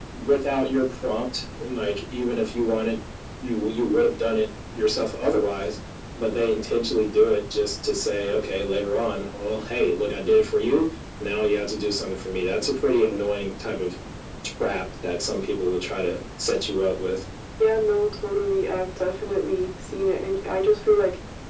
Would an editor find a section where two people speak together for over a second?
No

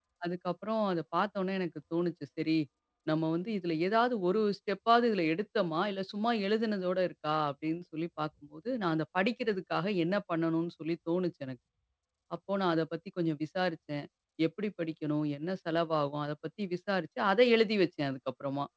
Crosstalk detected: No

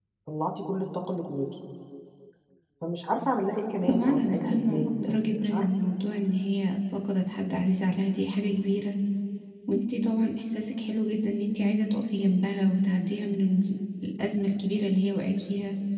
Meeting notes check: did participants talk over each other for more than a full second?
Yes, from 3.9 s

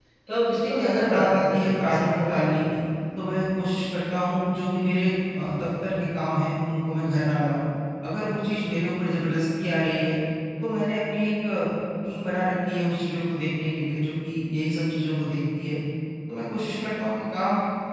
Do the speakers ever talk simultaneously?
Yes, from 0.6 s

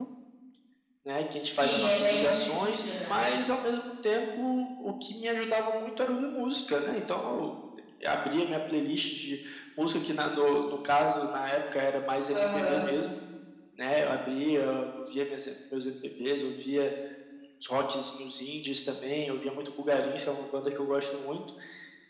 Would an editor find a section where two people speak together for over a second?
Yes, from 1.4 s

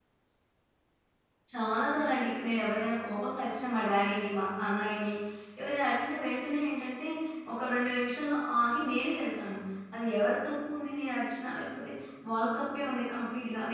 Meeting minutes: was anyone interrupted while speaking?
No

